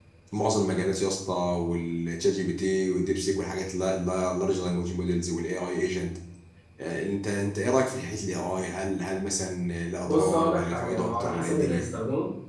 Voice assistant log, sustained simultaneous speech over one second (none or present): present